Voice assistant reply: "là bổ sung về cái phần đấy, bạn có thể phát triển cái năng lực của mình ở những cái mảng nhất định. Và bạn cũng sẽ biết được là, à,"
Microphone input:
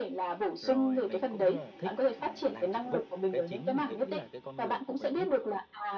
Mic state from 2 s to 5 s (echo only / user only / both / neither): both